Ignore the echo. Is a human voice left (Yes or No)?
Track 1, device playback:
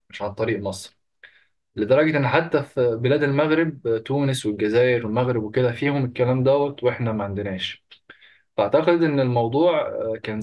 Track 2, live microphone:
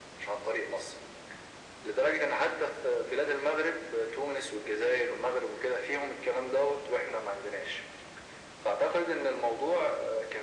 No